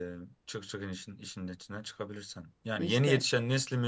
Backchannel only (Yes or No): Yes